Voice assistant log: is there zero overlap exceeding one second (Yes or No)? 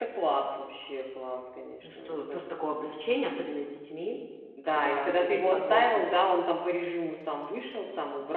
No